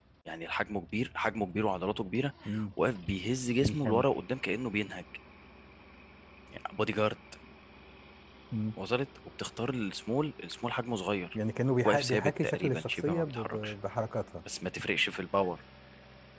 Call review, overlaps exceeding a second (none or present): present